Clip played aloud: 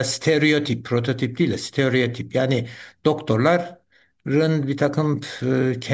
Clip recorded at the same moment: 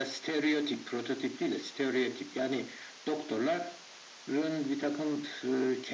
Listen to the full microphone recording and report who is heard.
echo only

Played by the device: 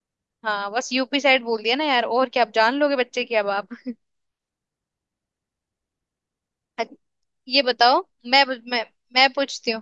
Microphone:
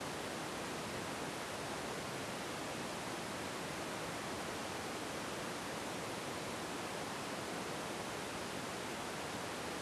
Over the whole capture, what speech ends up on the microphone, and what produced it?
neither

